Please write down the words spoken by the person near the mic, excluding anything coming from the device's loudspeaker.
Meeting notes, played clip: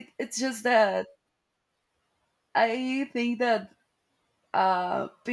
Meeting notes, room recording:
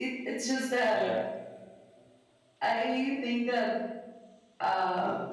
yeah

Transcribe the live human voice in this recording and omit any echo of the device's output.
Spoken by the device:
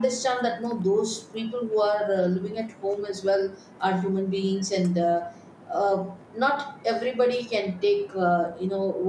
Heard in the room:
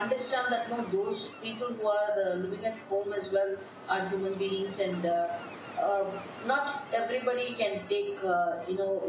none

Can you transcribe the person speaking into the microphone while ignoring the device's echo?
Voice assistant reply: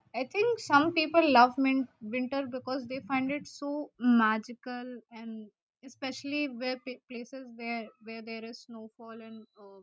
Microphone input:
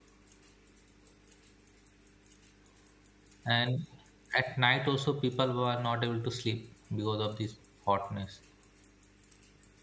and at night also people were not able to sleep because of this hotness

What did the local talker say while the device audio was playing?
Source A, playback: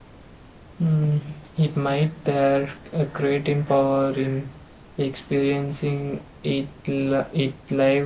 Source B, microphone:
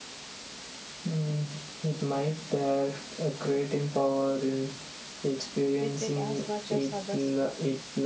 with it as much as others do.

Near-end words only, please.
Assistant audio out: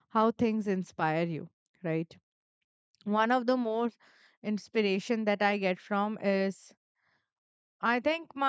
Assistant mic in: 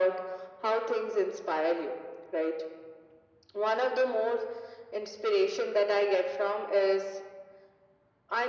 none

